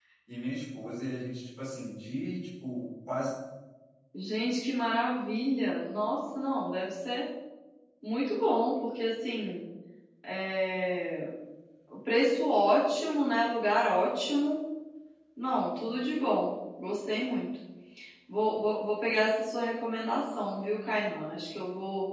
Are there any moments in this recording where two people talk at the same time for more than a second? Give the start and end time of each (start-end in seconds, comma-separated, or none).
none